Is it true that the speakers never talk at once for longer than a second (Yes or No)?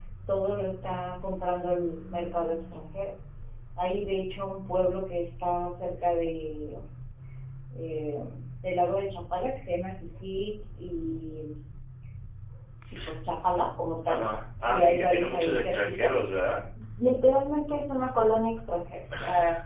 No